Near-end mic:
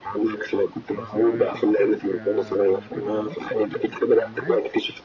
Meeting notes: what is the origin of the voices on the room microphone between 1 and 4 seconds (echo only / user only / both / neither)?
both